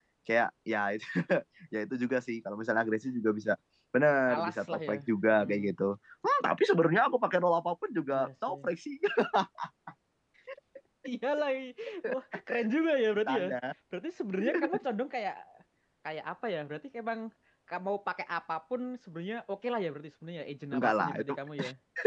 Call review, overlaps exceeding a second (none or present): present